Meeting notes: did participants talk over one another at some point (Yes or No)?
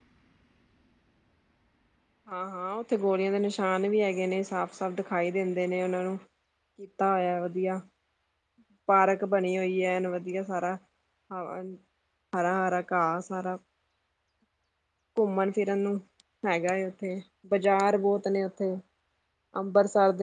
No